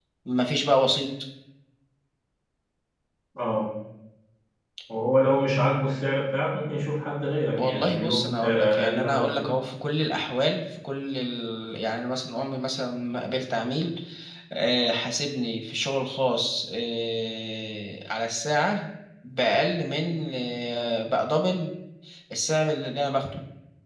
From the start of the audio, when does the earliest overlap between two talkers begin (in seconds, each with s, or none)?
7.5 s